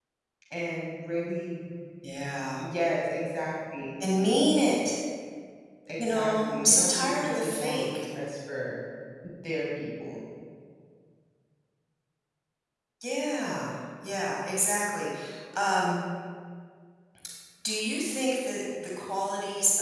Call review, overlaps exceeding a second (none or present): present